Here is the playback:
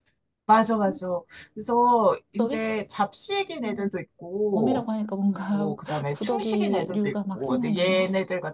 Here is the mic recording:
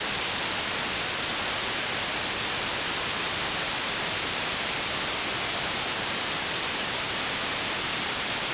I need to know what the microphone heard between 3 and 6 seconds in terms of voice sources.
neither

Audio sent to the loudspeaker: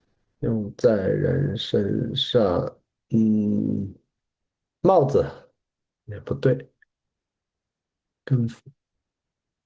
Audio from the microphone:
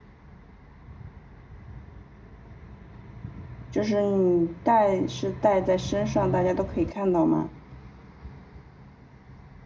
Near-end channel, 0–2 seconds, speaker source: neither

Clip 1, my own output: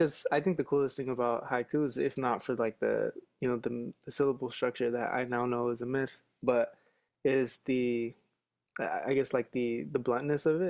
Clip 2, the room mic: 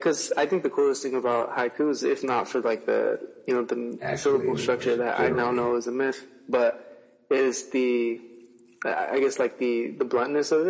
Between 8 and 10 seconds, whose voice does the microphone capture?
echo only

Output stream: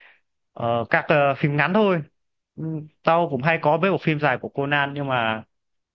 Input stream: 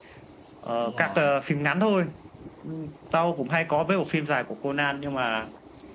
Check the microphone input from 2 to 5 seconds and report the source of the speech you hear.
echo only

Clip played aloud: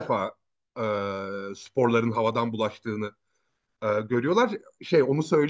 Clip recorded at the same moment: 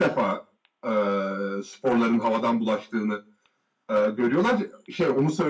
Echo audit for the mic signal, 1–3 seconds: echo only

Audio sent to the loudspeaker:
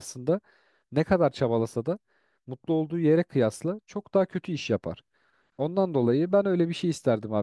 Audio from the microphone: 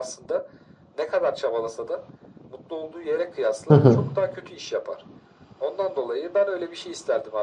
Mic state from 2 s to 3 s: echo only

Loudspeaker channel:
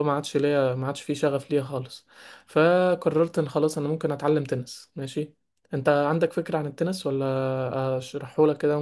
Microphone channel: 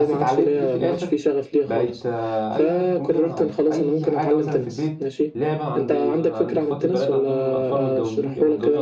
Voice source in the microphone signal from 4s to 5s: both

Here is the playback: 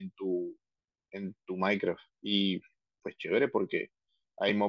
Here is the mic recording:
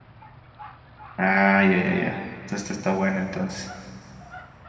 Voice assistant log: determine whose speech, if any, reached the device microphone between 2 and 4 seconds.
user only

